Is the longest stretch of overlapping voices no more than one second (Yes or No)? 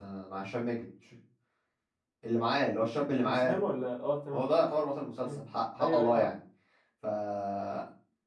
Yes